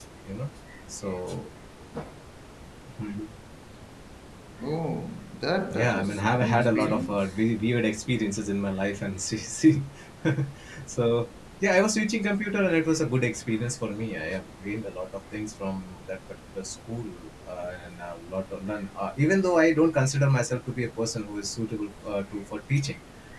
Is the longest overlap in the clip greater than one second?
Yes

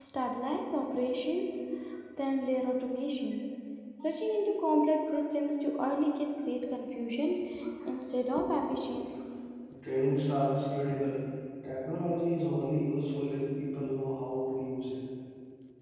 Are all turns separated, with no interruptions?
Yes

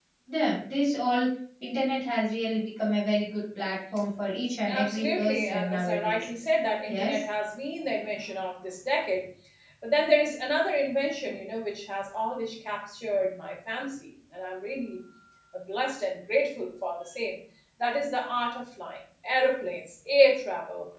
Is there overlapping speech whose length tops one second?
Yes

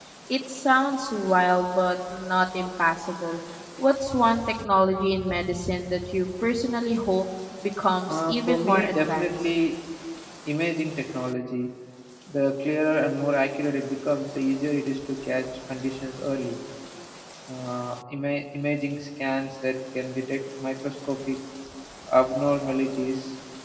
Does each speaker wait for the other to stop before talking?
No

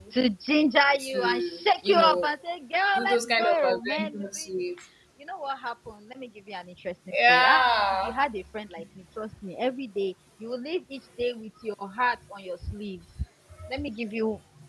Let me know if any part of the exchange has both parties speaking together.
Yes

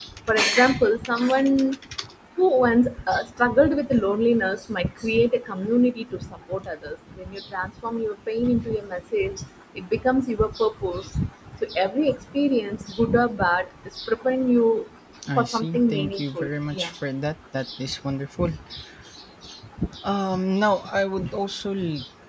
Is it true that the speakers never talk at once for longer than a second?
No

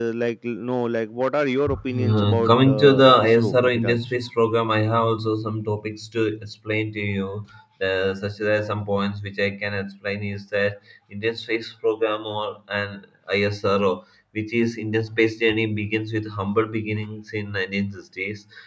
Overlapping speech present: Yes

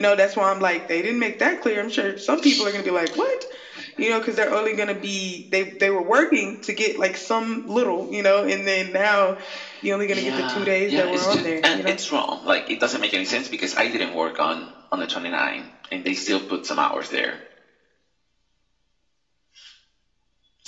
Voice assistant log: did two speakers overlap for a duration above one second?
Yes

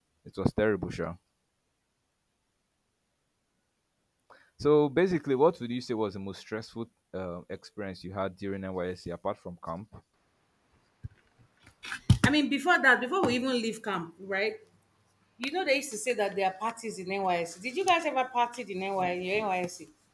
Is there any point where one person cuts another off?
No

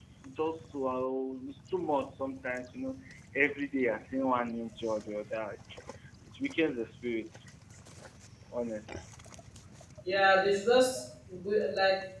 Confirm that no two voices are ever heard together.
Yes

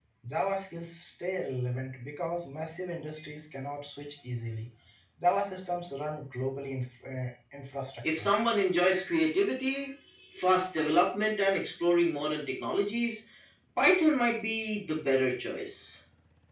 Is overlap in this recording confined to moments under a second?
Yes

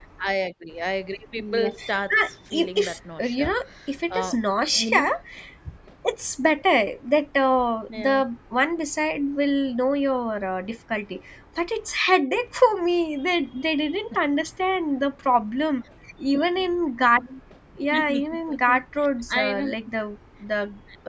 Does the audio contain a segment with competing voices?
Yes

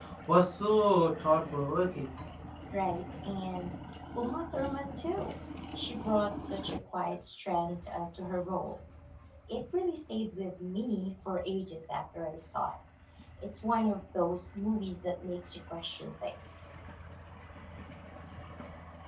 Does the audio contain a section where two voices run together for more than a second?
No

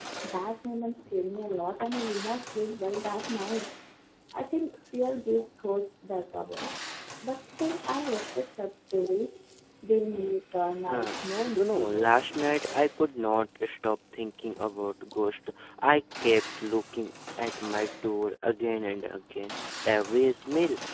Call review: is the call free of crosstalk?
No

